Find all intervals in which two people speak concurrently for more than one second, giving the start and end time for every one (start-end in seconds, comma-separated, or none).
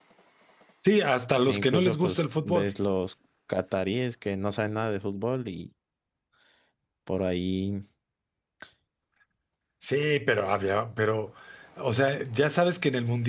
1.4-2.7